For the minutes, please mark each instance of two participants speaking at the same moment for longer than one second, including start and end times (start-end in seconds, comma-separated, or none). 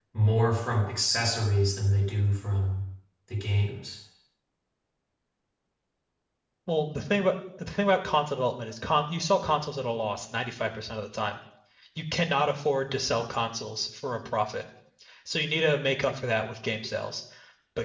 none